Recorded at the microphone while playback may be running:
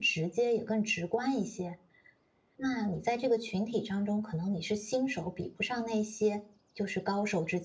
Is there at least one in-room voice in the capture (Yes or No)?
Yes